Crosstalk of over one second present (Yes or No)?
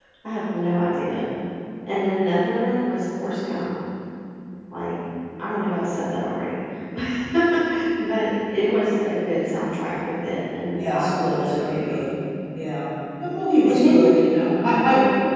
Yes